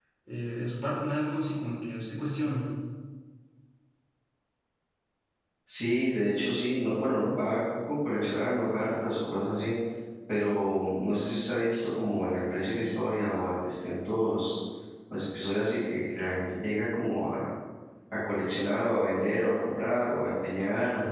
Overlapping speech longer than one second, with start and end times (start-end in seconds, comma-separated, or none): none